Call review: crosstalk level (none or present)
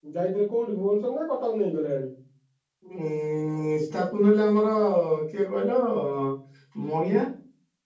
none